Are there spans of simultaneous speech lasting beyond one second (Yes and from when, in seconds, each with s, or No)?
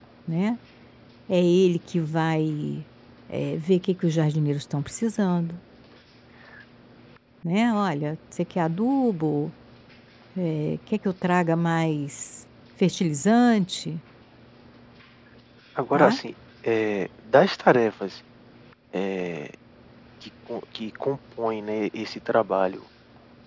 No